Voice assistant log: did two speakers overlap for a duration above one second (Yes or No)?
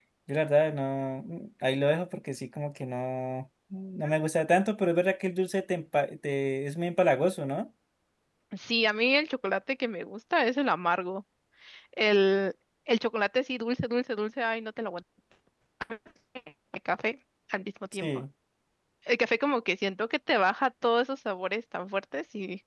No